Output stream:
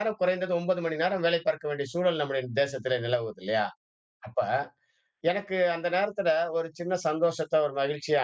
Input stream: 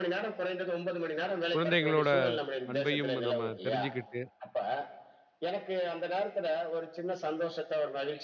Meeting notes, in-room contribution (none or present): present